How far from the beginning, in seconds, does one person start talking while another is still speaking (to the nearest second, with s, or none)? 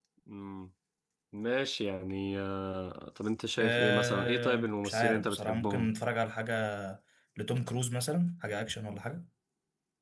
4 s